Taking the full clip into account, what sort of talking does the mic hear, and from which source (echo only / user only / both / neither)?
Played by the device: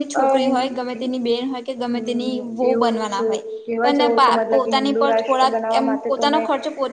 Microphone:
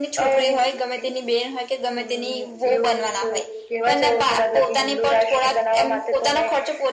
echo only